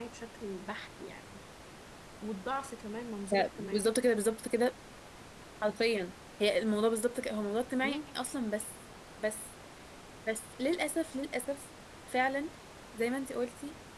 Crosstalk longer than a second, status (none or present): none